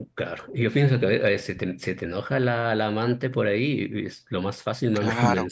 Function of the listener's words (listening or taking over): taking over